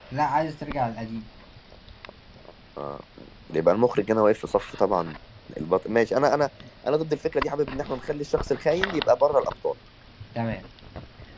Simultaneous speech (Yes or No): No